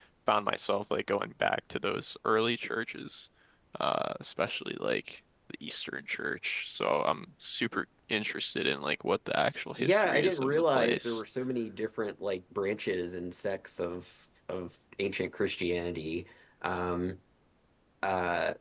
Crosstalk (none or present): present